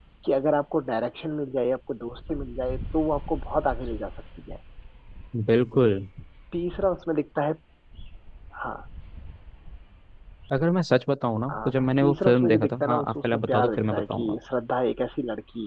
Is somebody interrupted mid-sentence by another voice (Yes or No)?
Yes